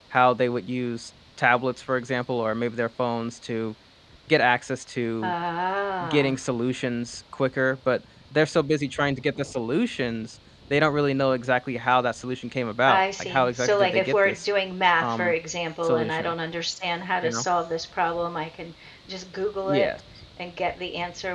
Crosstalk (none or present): present